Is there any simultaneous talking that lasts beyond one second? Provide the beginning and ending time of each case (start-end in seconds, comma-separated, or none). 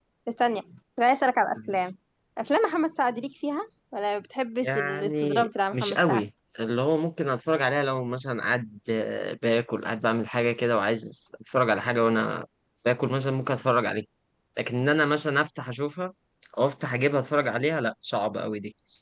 4.6-6.2